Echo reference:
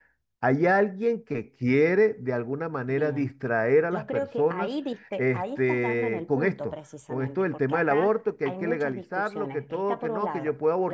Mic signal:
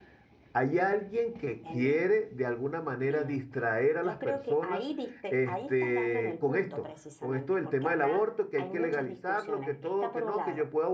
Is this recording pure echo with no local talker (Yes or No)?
No